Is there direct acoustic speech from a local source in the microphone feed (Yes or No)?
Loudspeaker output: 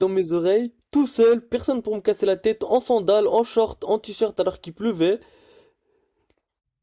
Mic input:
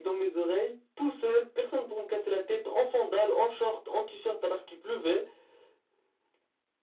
No